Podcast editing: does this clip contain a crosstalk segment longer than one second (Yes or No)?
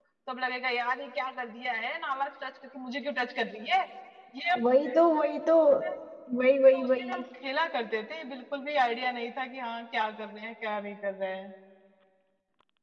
No